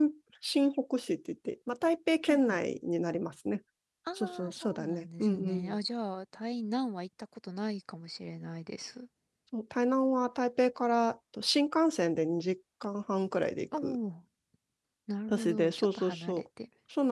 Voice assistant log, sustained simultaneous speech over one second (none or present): present